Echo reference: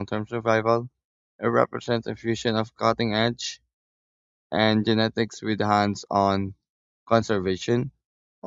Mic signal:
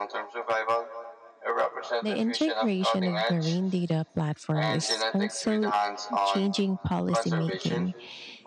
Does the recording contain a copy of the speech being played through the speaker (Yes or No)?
Yes